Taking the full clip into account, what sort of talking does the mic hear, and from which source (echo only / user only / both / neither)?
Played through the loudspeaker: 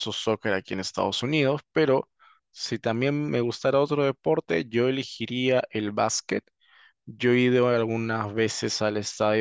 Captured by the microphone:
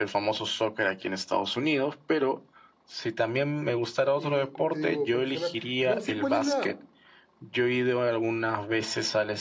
both